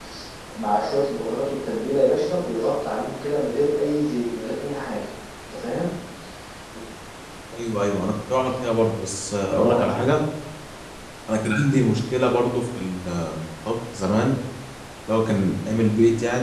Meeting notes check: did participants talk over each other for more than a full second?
No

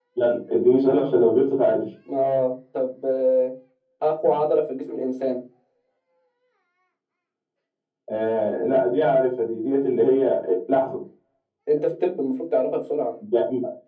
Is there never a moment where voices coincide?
Yes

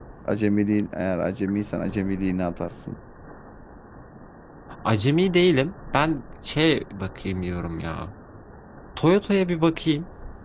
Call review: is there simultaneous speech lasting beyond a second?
No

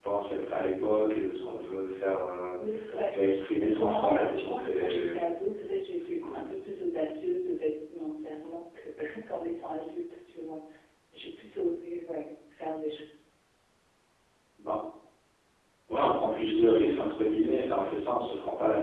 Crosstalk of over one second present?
Yes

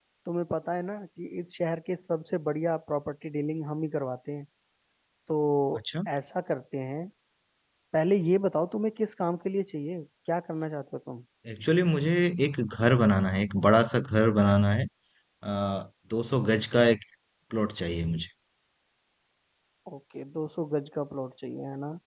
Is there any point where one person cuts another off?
No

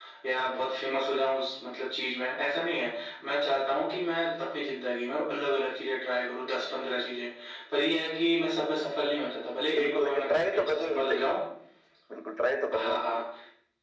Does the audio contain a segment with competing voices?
Yes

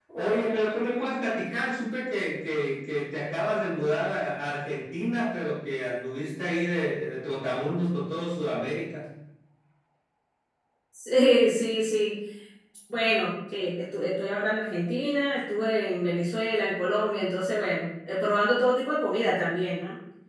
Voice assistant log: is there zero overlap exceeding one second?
Yes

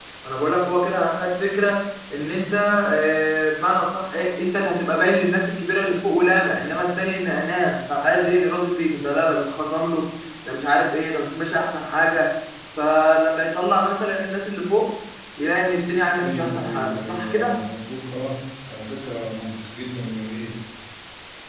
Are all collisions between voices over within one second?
No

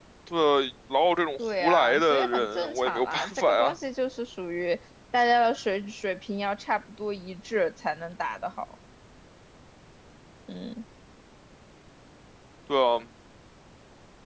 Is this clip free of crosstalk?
No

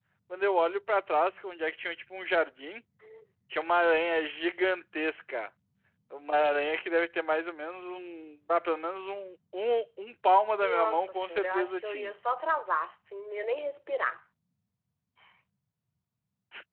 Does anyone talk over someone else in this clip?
Yes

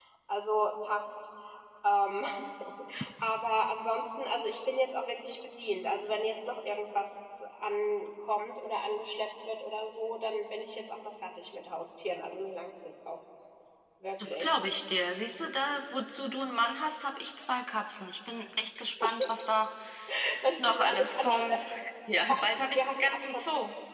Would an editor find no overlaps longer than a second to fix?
No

